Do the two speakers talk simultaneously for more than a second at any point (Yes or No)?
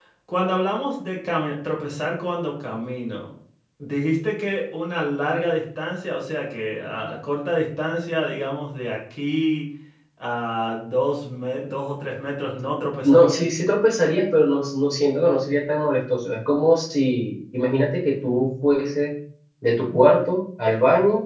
No